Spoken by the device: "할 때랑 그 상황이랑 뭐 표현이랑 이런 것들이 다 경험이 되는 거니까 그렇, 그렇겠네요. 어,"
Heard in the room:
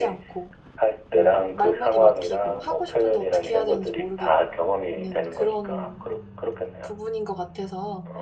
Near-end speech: present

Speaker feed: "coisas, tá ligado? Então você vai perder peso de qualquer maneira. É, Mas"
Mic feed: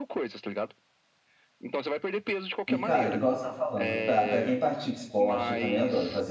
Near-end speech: present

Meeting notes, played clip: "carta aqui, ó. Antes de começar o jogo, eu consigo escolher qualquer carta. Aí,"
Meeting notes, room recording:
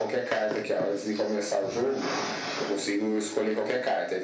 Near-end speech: none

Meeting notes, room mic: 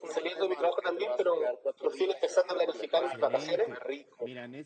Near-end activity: present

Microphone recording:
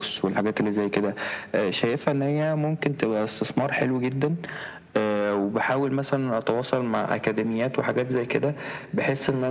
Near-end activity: none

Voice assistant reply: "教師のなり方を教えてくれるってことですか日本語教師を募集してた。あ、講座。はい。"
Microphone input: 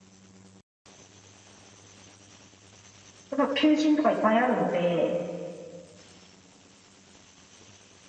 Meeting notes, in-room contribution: present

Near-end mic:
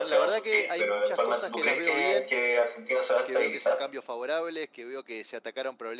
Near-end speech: present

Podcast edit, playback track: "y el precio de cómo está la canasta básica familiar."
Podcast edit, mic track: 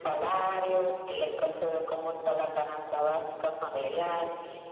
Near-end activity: present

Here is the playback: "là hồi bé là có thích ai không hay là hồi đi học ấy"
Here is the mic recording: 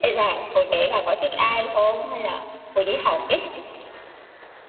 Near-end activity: none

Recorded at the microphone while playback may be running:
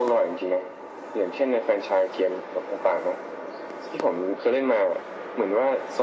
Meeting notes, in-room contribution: none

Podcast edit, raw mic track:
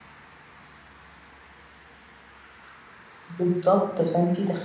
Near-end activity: present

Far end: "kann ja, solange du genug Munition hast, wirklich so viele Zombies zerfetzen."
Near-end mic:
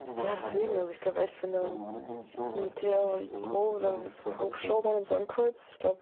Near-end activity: present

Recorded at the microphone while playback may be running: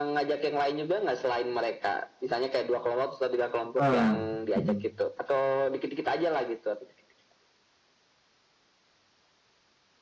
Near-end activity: present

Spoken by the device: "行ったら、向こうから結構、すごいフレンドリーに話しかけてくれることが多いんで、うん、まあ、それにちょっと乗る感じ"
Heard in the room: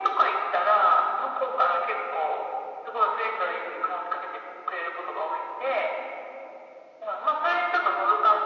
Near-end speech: none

